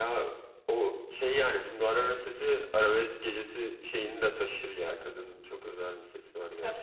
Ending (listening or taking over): taking over